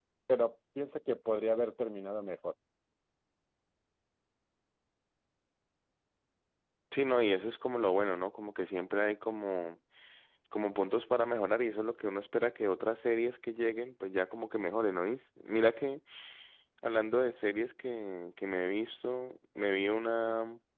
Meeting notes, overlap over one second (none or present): none